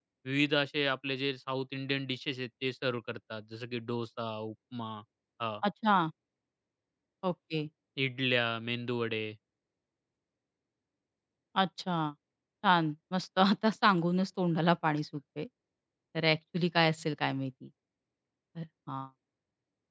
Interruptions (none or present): none